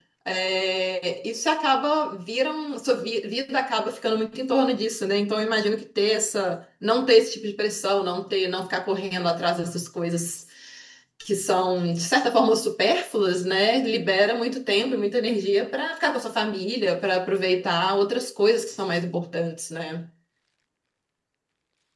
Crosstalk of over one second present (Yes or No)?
No